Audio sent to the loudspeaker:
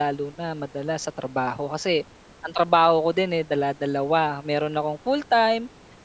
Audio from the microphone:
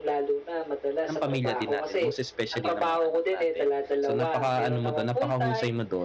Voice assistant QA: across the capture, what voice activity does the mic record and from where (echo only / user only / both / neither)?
both